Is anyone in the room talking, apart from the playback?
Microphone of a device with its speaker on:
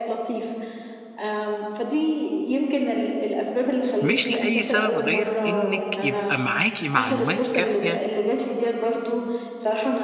Yes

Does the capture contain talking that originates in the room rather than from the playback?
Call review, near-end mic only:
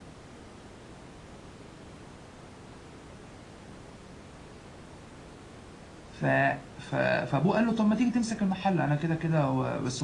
Yes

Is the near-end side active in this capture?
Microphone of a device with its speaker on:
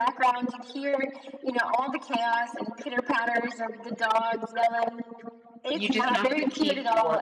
Yes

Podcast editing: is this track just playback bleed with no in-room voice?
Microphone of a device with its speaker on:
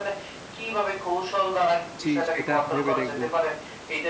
No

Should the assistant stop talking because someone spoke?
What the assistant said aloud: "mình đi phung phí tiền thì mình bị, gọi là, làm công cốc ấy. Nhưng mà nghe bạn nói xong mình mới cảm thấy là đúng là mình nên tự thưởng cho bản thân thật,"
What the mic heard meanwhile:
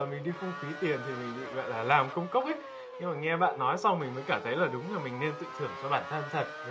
No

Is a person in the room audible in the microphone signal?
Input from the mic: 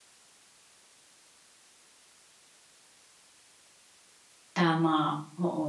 Yes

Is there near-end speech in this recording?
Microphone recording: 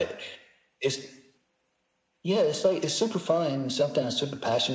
No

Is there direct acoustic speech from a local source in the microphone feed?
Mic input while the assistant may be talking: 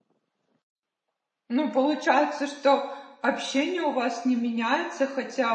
Yes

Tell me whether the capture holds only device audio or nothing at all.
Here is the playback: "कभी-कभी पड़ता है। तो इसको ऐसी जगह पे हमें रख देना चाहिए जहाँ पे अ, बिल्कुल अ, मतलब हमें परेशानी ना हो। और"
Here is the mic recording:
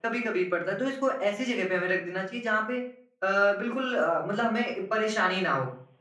Yes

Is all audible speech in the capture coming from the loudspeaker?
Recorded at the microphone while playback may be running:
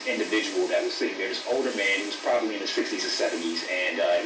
Yes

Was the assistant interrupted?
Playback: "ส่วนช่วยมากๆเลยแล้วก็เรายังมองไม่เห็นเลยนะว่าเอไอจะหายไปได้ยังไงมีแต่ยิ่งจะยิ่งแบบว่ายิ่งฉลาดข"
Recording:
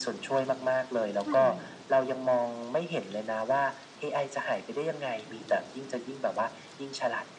Yes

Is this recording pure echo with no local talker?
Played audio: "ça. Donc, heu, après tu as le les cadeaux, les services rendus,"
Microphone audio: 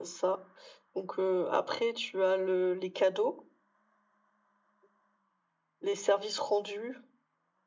Yes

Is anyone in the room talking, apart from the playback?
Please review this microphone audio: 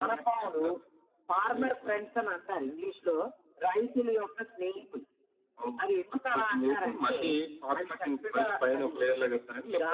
No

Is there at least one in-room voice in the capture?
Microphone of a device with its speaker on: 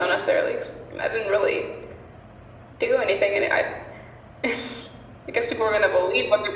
No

